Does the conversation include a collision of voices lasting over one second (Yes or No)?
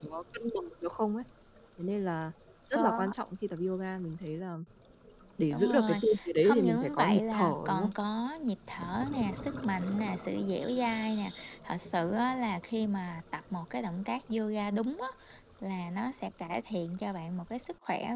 Yes